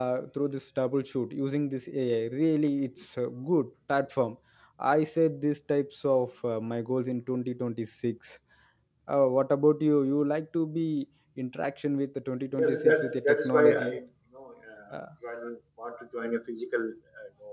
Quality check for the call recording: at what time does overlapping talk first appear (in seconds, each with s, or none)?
12.6 s